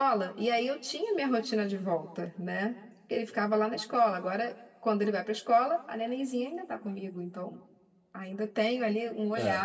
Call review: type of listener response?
listening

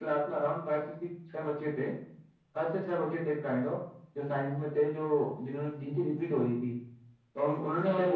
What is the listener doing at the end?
listening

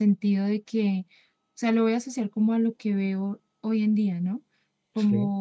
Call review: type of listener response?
listening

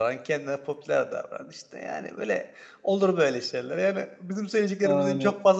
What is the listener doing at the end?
listening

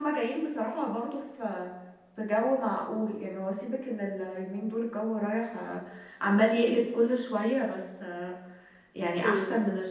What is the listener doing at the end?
listening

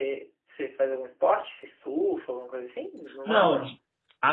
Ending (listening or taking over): taking over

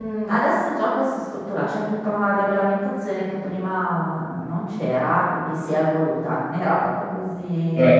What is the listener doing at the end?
taking over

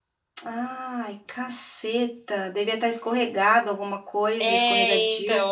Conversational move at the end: taking over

